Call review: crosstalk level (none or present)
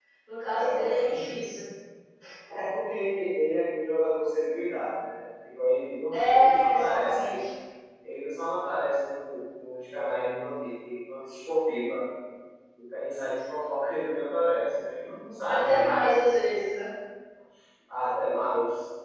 present